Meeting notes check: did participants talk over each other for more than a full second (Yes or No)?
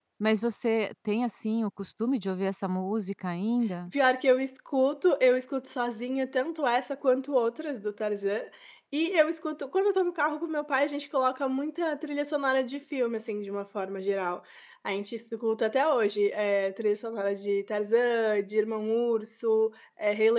No